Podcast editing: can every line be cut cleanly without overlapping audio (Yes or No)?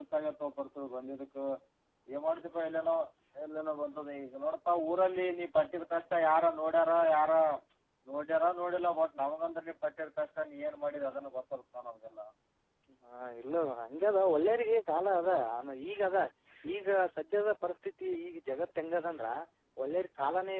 Yes